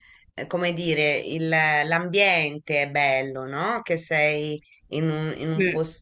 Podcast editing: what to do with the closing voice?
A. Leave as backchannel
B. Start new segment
A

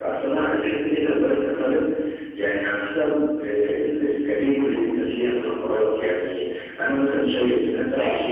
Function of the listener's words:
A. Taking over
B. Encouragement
A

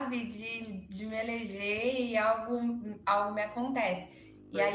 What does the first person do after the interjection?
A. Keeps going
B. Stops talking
A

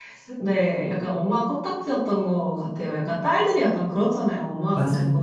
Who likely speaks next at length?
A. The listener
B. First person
B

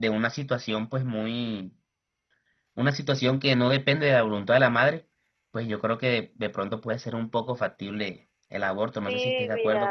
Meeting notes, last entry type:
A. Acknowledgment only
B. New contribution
B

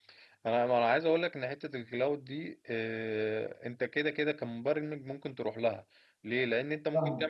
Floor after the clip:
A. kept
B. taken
A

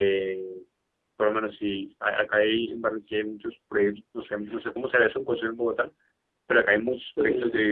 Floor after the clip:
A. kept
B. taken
A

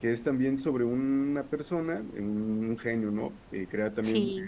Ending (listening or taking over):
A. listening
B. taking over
A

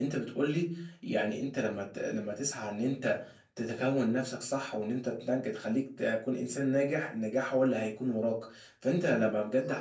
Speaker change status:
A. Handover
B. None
B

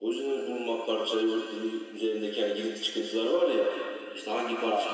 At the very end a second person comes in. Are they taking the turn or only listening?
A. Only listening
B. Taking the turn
A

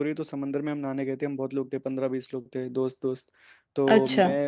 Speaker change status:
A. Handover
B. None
B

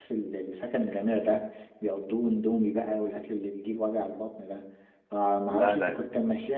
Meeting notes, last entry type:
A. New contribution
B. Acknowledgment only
B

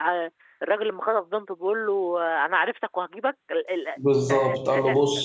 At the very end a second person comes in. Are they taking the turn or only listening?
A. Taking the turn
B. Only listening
A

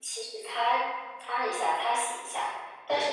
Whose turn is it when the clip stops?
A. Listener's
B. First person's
B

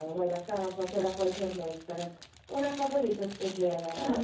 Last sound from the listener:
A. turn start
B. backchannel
A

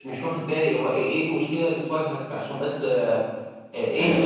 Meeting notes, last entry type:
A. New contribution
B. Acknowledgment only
A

